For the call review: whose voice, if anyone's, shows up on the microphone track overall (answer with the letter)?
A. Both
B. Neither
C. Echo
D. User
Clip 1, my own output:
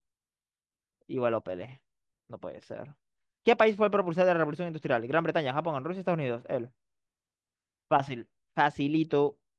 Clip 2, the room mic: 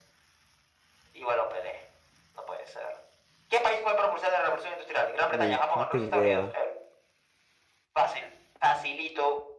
A